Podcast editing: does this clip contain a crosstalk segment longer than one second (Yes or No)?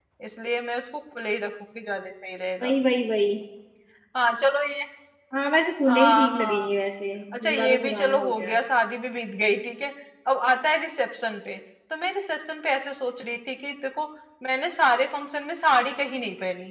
Yes